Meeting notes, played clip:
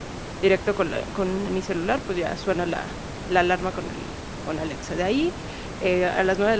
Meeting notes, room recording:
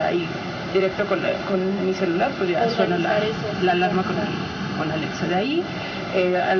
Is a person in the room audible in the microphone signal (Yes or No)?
Yes